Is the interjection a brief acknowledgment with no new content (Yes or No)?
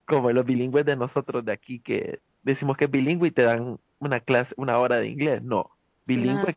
Yes